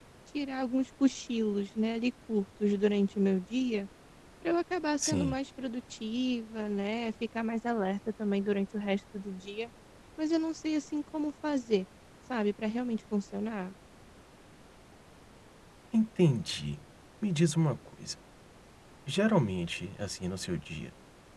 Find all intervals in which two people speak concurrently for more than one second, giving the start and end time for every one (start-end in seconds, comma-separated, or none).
none